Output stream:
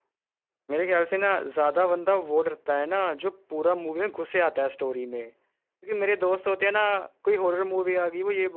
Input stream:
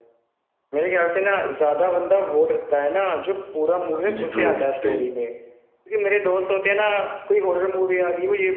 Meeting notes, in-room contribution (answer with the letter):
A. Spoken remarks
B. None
A